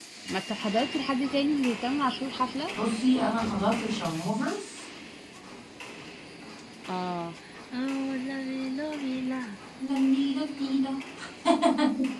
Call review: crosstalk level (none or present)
none